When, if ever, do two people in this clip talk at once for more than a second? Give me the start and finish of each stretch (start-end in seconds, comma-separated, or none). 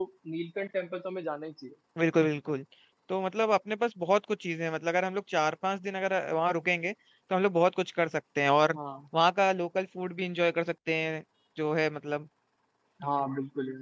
none